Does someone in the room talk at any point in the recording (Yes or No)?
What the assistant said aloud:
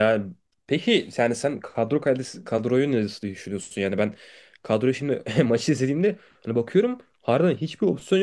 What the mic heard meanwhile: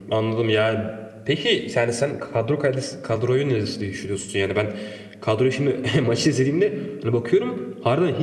No